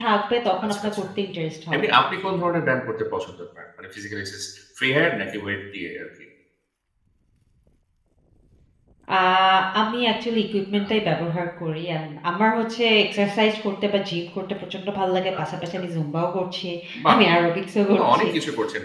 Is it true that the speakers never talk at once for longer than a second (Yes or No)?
Yes